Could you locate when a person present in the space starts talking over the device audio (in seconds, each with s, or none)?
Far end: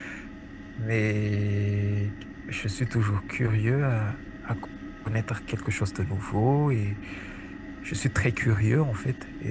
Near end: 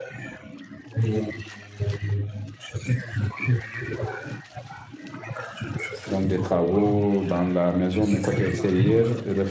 6.0 s